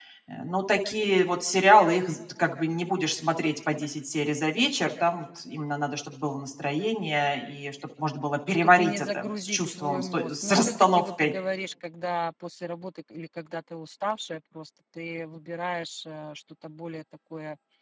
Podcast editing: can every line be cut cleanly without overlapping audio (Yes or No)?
No